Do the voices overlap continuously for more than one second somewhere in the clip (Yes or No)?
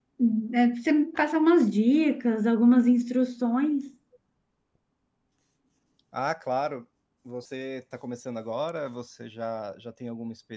No